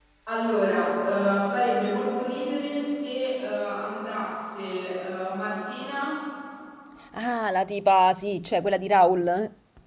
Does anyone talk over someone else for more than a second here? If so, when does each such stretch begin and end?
none

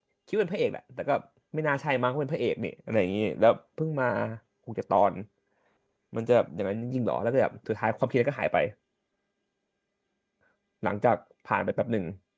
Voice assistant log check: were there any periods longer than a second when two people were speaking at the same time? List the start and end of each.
none

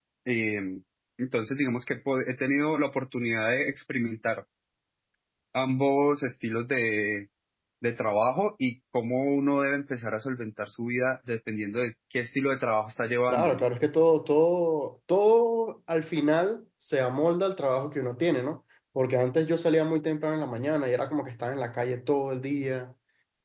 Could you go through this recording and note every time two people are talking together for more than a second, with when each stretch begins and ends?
none

